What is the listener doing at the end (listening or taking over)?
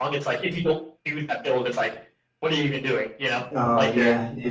taking over